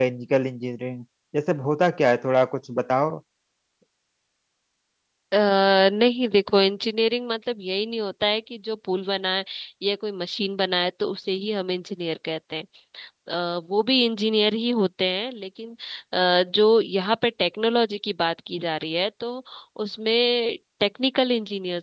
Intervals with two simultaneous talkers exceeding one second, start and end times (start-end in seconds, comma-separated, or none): none